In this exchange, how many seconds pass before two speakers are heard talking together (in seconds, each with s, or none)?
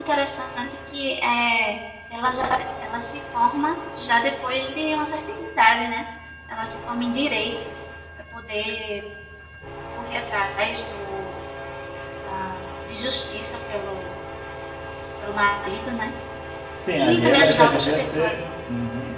16.9 s